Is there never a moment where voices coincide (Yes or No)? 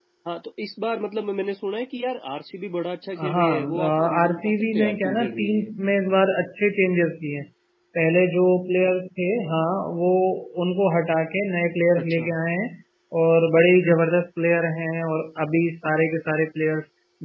No